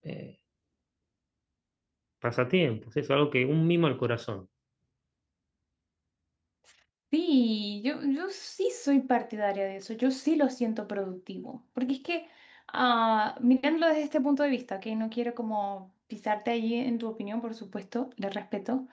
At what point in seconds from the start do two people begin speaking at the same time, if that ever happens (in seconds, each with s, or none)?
none